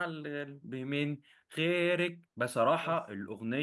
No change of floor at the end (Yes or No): Yes